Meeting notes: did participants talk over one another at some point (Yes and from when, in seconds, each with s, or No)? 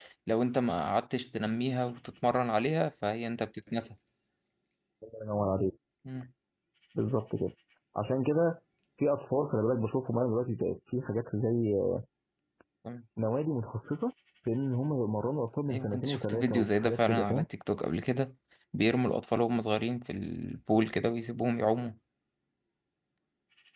Yes, from 15.7 s